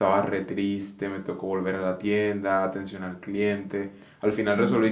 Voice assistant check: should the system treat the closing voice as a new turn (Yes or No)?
No